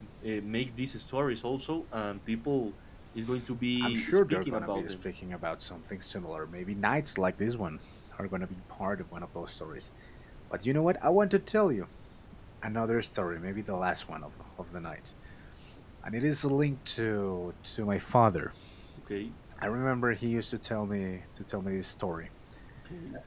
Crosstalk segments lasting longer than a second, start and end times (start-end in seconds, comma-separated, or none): 3.8-5.0